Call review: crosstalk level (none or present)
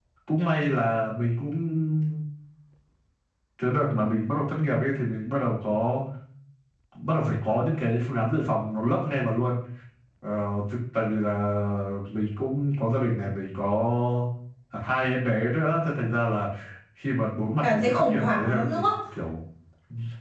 present